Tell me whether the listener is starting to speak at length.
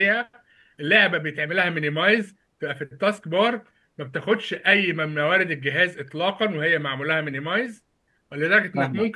No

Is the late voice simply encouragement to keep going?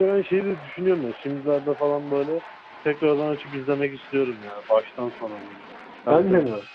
No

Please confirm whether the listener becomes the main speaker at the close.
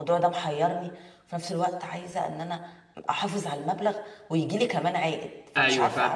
Yes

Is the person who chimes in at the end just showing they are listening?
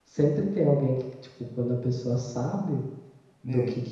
Yes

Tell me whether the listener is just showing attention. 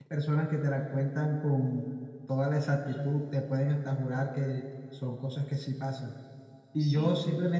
Yes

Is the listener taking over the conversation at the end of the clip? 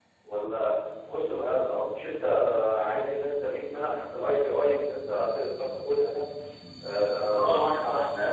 Yes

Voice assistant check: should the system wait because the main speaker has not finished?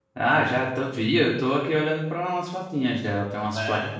No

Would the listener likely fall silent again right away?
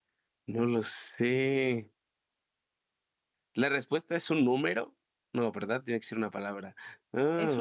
No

